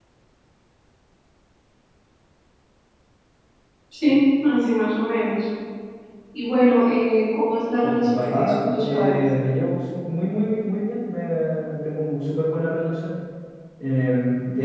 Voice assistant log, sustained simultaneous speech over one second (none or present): present